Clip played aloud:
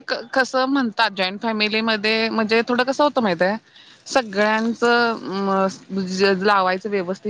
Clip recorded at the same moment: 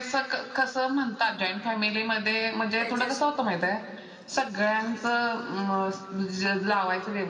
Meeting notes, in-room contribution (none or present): present